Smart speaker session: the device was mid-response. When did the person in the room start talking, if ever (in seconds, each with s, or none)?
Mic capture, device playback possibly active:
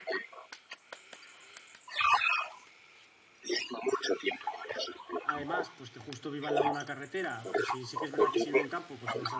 5.2 s